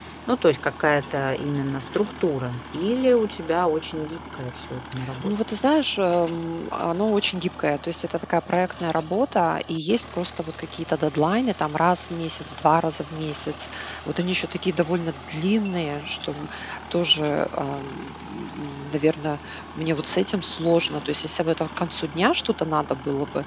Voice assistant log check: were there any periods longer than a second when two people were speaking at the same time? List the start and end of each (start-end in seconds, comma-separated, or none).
none